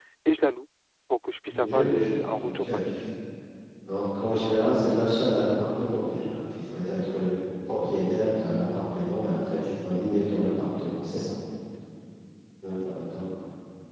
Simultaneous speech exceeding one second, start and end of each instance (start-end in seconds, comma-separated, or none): 1.5-2.8